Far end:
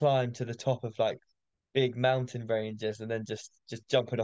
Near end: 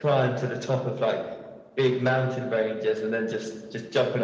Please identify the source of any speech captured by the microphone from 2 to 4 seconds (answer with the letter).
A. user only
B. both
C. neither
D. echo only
D